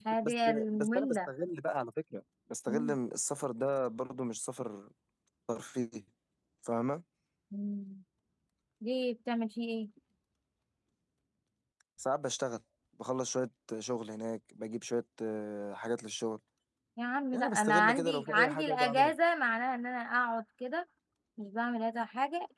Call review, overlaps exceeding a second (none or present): present